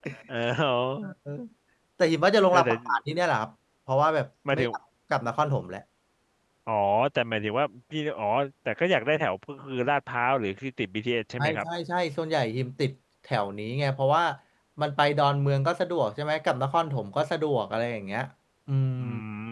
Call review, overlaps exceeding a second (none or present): none